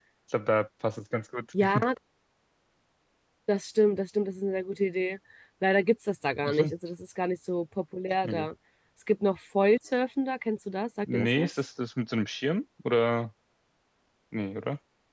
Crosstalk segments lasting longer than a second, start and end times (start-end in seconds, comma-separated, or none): none